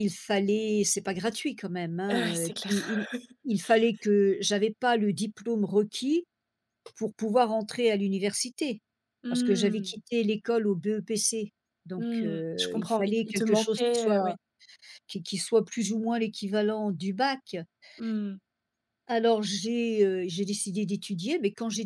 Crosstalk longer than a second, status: present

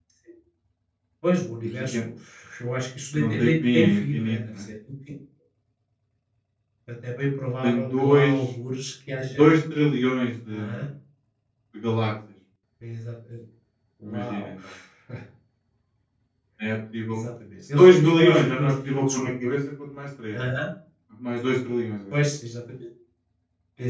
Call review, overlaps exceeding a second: present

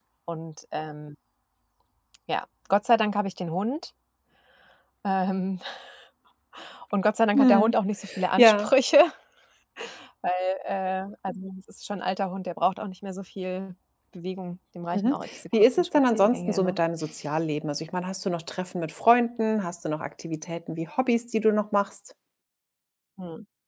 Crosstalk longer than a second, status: present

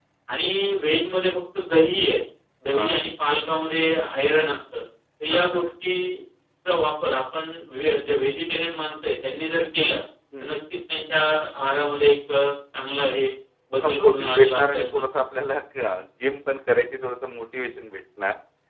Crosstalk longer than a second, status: present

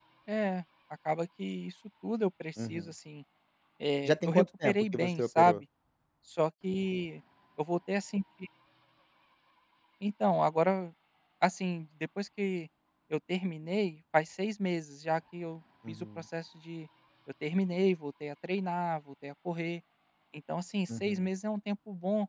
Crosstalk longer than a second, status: present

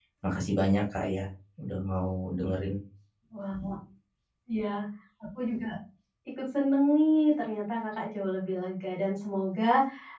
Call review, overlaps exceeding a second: none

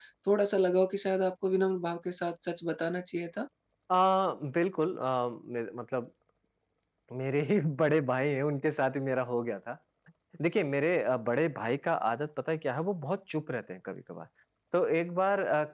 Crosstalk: none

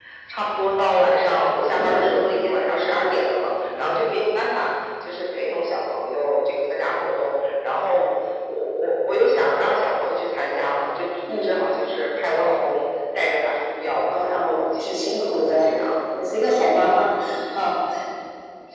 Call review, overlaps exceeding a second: present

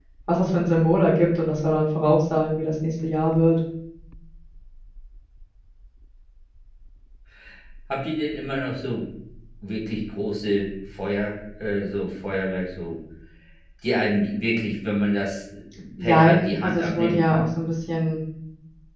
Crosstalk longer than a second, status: present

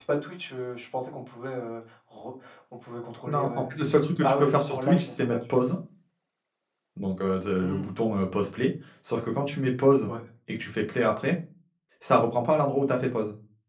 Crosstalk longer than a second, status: present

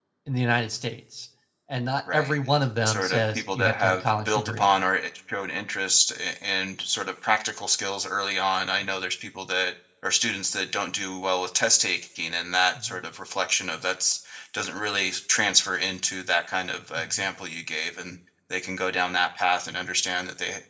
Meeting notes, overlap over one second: present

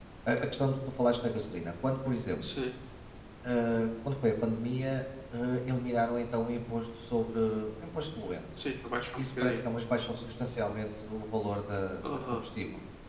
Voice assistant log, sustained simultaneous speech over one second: none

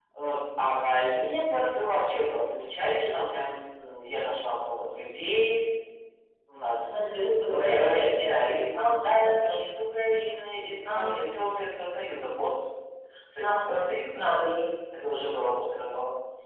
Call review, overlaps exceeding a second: present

